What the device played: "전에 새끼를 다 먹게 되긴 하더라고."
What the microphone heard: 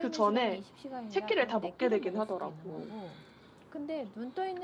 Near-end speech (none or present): present